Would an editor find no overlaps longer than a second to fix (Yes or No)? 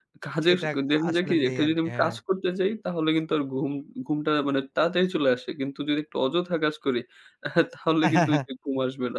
No